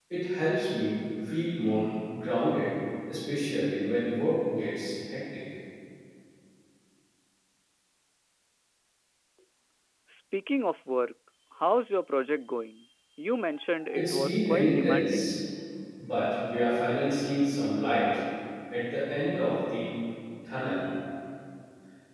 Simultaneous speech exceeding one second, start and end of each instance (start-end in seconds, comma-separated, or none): 13.9-15.4